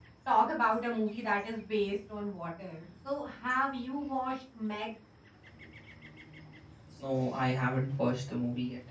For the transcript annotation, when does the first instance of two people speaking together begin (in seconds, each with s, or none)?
none